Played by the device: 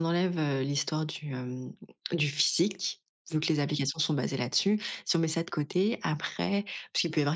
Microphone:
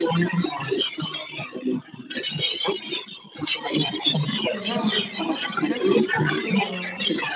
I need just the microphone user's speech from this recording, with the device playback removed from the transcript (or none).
déjà, en l'occurrence, peut-être, euh, ce qui peut, heu,